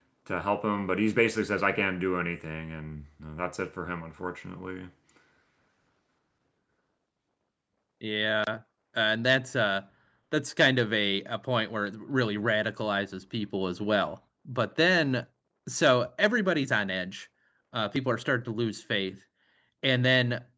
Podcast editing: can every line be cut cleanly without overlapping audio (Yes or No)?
Yes